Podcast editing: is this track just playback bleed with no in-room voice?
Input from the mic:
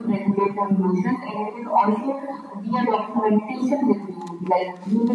Yes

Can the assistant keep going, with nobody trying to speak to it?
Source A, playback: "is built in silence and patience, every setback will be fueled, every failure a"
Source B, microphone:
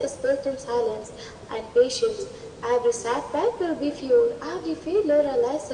Yes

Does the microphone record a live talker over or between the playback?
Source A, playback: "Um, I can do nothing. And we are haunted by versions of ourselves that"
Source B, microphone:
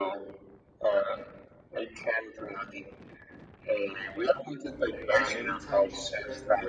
Yes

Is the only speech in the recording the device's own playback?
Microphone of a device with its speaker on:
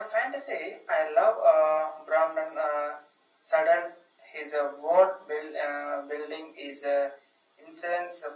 Yes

